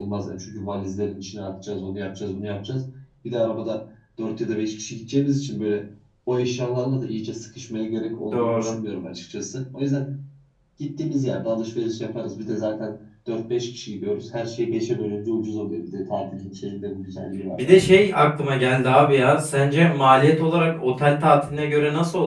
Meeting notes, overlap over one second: none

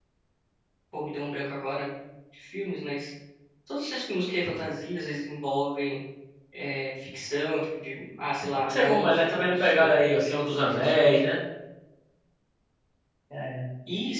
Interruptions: present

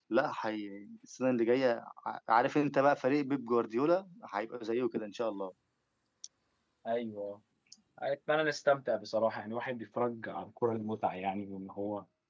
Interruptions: none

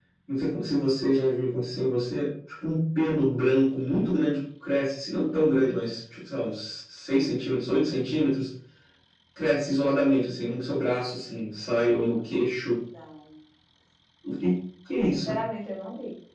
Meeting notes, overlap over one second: none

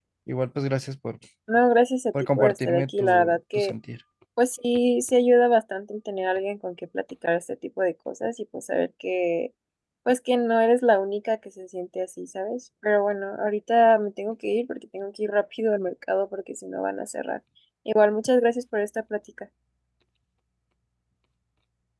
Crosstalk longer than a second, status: present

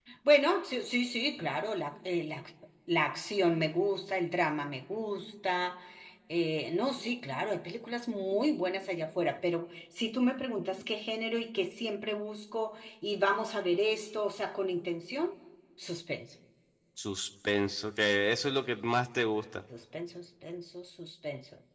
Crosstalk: none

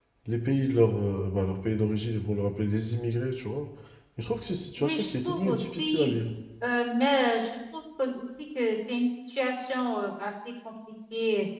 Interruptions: present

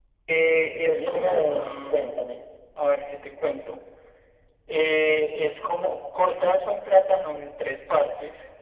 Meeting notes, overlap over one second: present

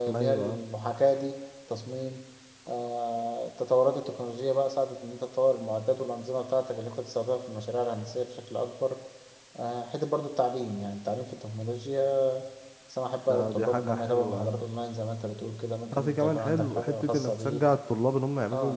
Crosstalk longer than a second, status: present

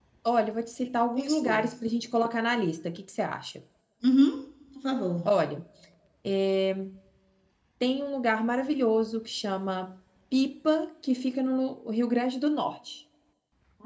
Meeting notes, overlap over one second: none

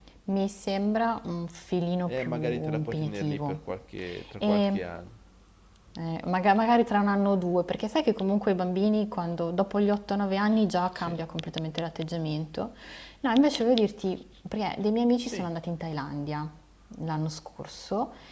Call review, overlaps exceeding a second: present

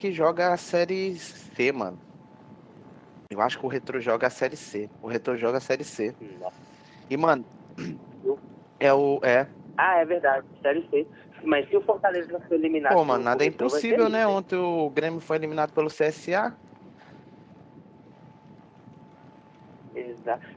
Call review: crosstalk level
present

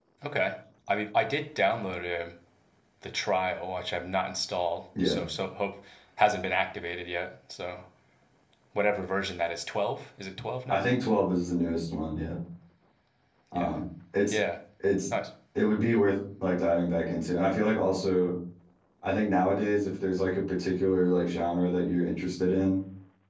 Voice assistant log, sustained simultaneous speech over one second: none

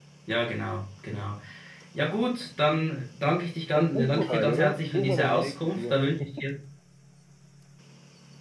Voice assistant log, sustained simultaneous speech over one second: present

